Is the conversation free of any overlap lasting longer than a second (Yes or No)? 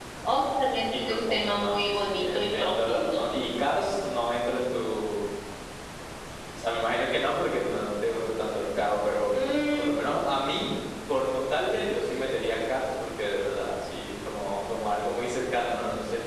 No